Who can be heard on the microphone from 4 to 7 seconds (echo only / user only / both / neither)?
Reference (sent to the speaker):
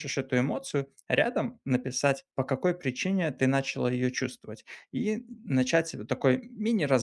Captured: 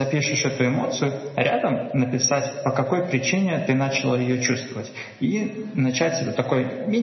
echo only